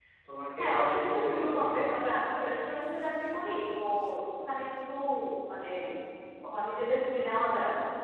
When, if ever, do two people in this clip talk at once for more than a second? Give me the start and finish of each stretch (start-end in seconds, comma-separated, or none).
0.6-1.8